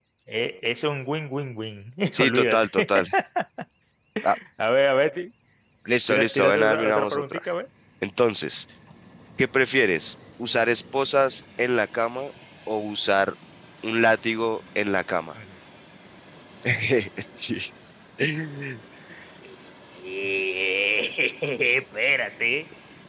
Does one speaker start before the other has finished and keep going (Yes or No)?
Yes